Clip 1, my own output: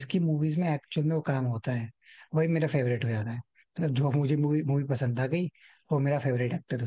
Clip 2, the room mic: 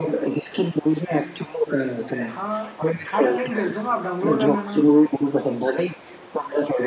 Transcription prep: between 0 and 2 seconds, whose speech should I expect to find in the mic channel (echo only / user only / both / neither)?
echo only